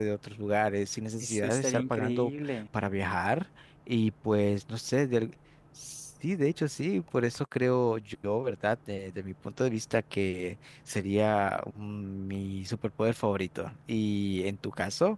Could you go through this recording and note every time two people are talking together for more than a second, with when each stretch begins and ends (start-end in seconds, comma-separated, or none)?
1.2-2.6